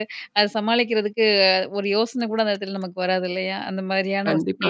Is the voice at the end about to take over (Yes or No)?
No